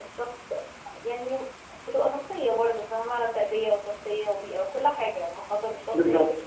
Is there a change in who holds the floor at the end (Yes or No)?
No